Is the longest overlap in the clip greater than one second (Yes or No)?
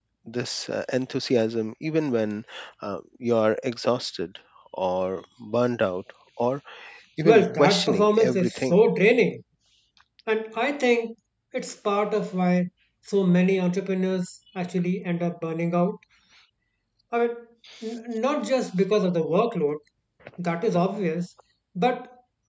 Yes